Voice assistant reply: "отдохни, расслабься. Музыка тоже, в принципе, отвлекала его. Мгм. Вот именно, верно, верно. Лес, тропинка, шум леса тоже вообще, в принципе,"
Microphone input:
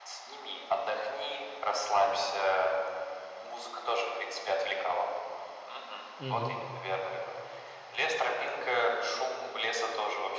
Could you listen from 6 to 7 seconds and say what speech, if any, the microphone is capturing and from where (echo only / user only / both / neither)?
both